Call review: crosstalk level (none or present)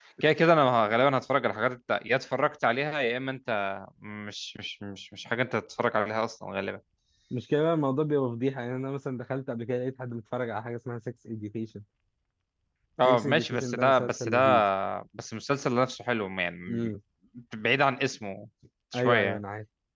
present